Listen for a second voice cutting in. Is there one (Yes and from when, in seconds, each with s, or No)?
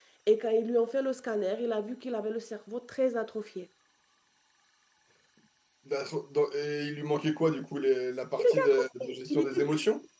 Yes, from 8.4 s